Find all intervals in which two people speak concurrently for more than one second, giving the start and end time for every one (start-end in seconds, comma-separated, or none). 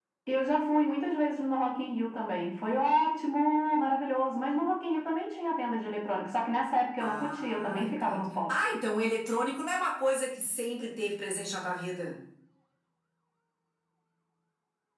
7.0-8.5